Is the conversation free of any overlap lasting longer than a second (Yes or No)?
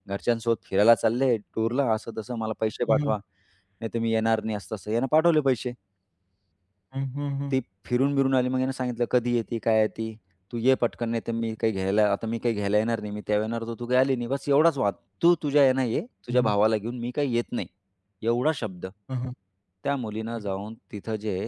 Yes